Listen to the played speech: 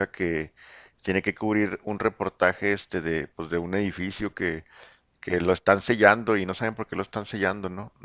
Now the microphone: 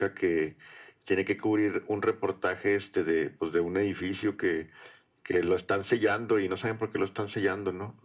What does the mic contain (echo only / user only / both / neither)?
echo only